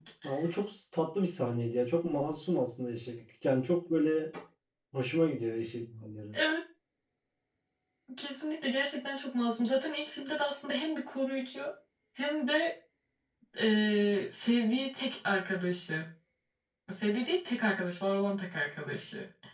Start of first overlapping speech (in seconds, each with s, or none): none